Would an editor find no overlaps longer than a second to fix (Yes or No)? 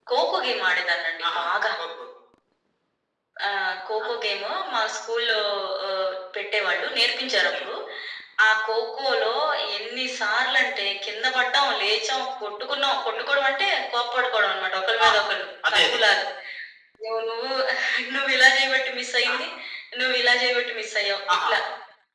Yes